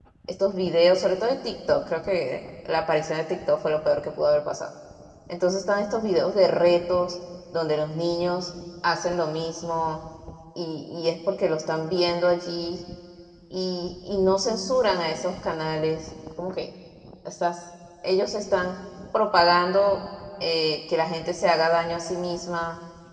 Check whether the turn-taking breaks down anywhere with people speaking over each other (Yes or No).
No